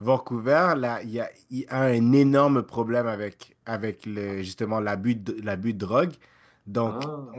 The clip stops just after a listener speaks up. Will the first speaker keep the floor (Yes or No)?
Yes